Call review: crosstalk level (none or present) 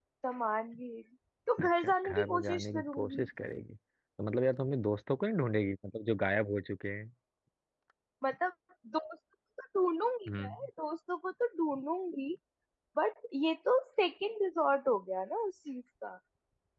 present